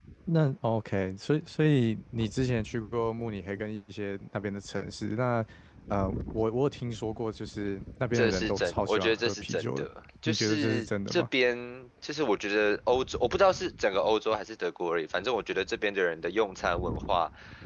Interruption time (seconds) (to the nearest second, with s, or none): 8 s